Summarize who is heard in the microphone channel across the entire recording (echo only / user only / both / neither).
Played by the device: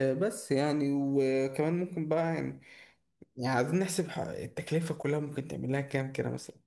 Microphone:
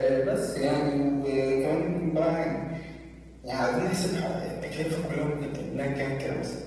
echo only